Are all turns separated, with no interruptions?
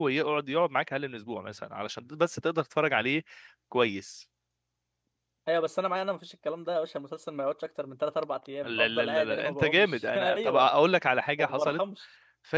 No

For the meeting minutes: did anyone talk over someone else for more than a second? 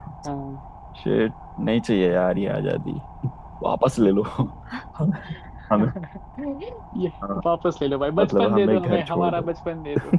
Yes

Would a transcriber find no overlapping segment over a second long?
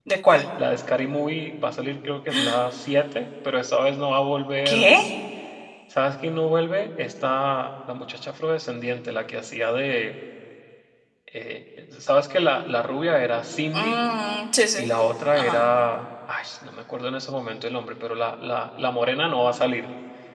Yes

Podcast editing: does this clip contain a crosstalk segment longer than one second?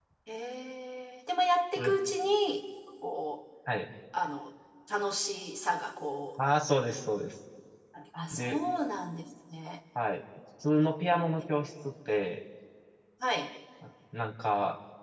No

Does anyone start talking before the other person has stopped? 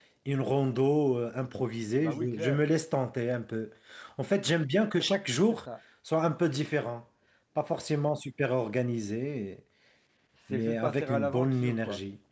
Yes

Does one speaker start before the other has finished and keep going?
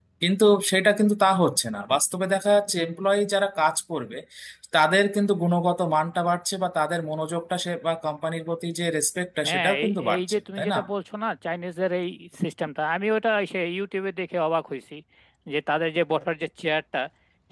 Yes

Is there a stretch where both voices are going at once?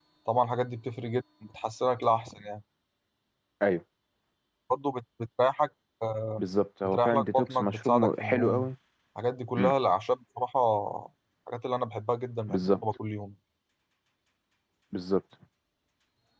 Yes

